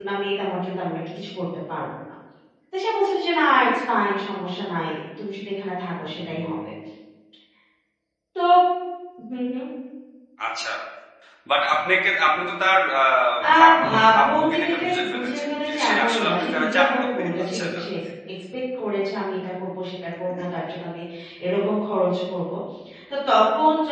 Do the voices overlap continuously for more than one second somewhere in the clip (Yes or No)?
Yes